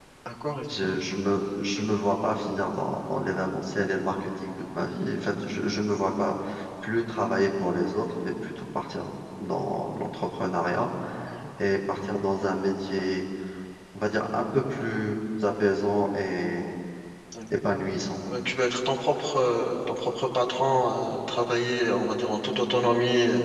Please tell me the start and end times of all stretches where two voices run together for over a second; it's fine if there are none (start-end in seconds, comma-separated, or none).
none